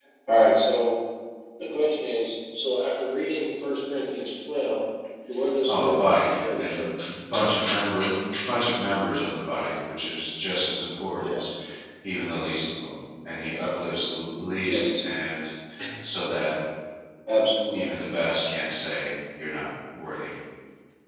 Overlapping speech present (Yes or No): Yes